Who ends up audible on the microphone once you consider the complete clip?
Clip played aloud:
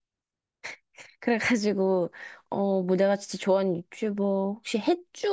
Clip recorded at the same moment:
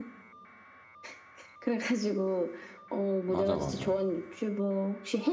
both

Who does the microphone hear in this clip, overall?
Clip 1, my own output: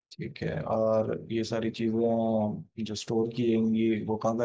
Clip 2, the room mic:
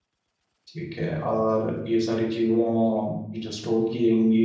echo only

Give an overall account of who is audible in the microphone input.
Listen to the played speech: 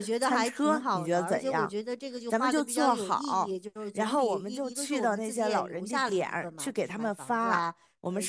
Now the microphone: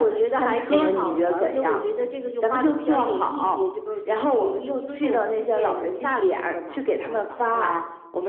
both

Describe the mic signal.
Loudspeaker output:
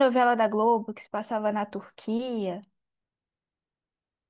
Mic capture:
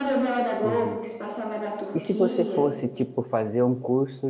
both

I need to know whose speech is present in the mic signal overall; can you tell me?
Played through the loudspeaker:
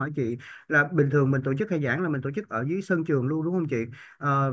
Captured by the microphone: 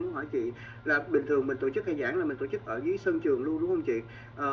echo only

